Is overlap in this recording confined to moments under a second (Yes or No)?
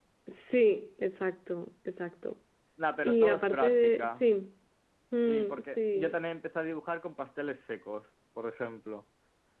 No